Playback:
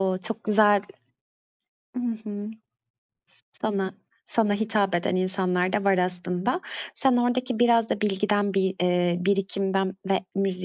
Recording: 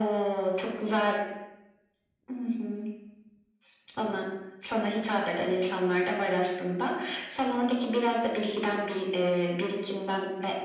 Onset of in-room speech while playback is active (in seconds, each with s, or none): none